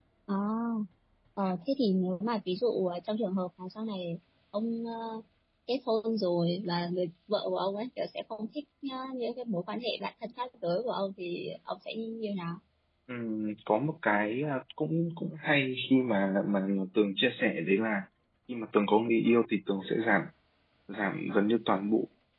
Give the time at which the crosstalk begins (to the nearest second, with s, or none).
none